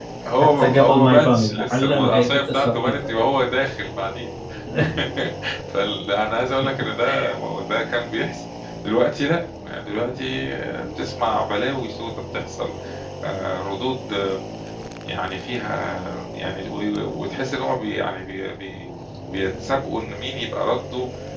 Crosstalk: present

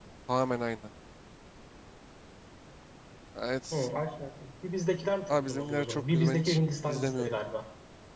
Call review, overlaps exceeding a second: present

